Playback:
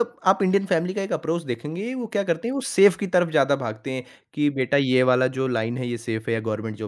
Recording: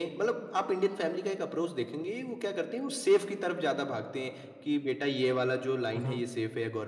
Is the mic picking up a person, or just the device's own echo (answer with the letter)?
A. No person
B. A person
B